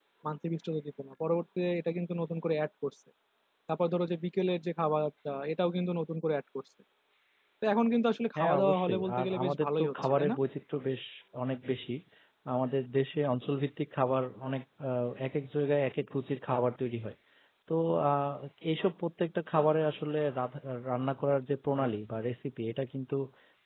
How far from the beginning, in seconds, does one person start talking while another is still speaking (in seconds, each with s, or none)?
8.4 s